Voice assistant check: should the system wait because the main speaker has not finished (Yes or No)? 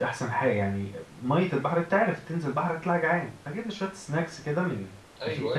Yes